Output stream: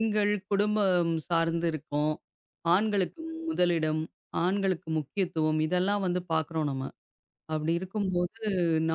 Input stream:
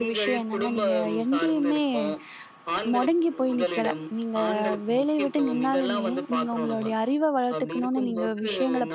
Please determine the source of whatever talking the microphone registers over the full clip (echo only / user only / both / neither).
both